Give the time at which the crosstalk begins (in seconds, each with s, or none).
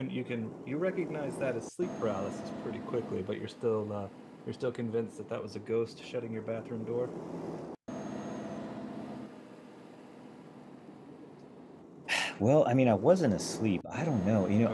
none